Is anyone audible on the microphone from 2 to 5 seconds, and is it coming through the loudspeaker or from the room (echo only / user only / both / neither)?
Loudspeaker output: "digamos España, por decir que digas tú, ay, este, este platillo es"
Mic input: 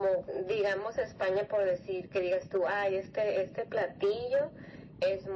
echo only